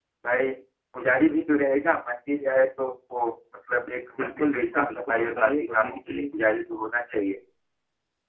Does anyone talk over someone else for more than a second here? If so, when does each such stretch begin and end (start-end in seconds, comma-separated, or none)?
4.2-6.2